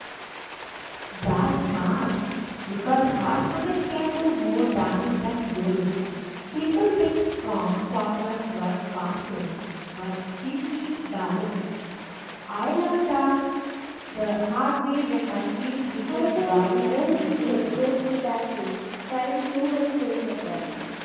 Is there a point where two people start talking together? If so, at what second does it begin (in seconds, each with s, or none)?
16.0 s